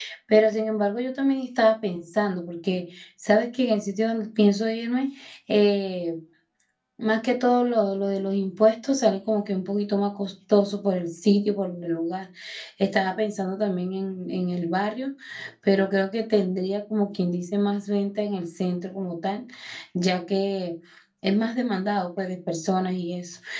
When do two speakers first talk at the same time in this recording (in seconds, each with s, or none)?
none